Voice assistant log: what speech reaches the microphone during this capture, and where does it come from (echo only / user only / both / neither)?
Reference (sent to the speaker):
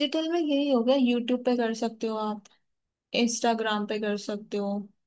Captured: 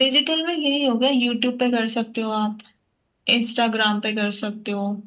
echo only